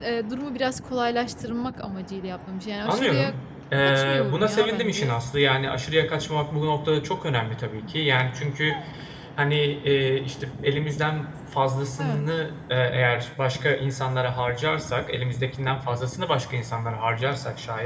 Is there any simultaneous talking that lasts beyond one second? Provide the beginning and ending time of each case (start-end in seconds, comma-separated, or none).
3.8-5.2